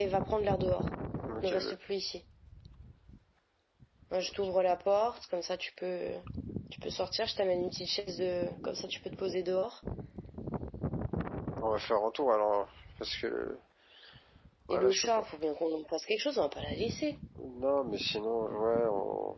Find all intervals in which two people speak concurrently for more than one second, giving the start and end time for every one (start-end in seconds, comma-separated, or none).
none